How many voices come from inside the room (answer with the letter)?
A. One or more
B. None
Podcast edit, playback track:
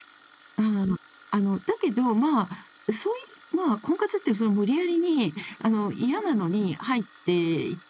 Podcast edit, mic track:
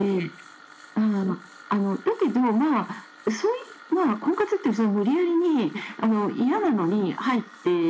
B